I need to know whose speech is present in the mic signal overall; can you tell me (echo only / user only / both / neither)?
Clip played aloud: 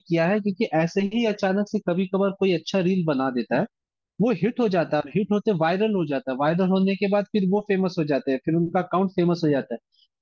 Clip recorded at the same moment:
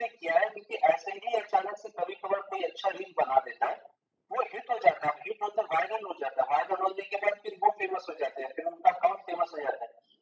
echo only